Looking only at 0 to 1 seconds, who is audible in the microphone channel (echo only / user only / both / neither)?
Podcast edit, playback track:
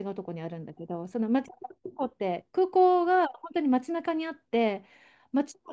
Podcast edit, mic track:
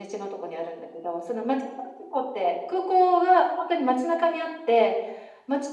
echo only